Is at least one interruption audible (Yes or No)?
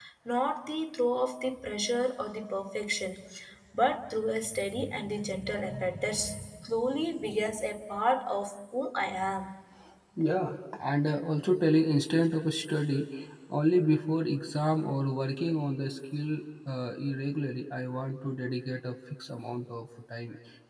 No